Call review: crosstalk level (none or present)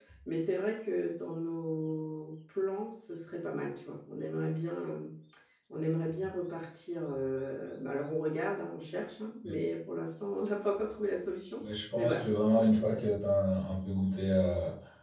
present